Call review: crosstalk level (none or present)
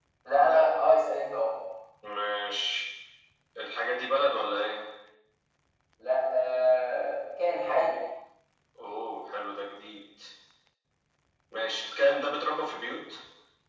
none